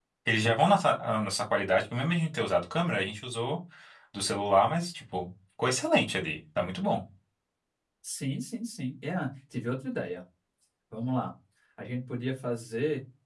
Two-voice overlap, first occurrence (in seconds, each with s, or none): none